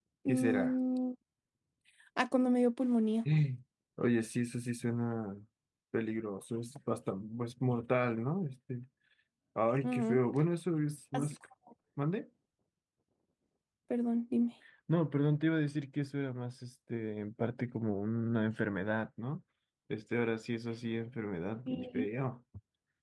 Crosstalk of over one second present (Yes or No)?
No